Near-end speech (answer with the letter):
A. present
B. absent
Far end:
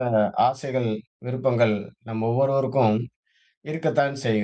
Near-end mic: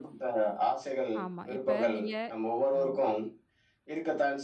A